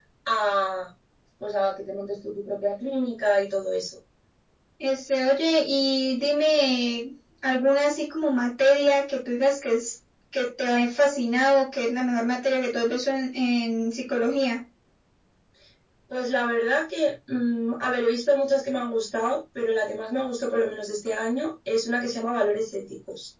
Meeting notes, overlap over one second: none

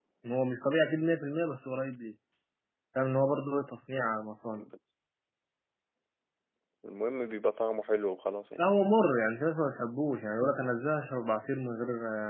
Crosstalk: none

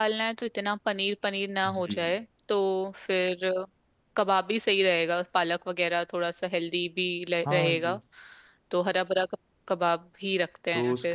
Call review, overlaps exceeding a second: none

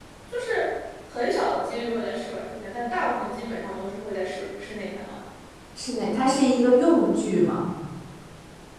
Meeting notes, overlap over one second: none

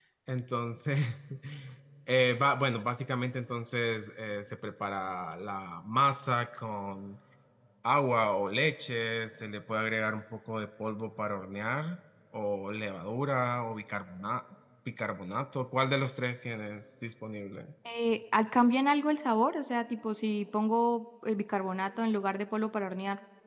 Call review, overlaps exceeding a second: none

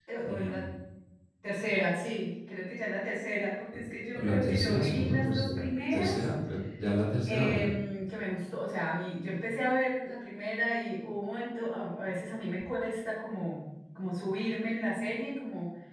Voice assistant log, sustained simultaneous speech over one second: present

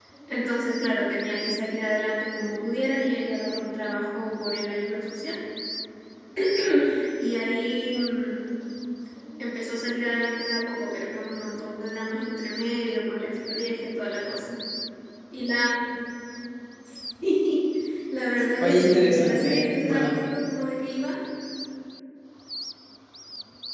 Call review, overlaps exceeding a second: present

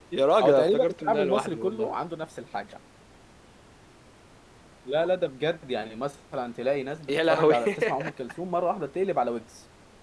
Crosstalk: present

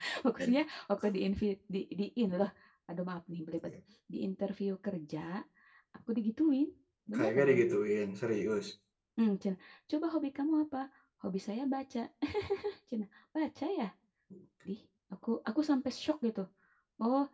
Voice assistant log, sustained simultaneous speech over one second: none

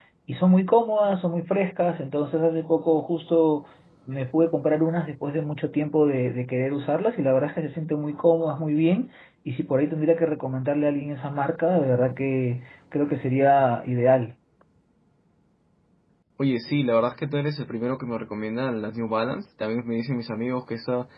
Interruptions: none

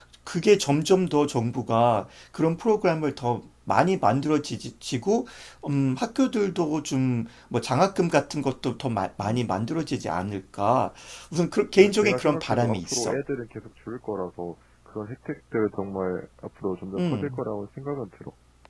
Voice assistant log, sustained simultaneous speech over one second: present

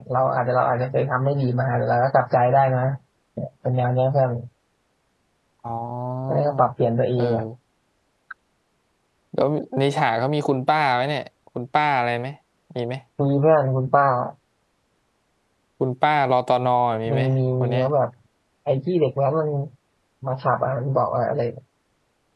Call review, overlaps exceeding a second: none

